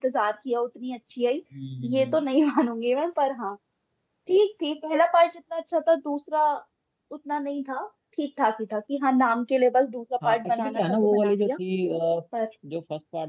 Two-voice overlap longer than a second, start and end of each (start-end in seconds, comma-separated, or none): 10.2-11.5